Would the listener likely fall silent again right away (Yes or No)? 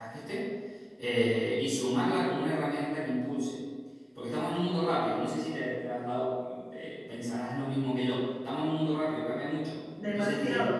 No